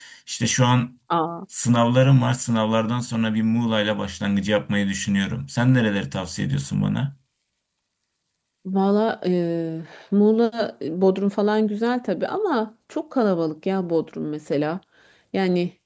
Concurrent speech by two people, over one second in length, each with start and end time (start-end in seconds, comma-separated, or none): none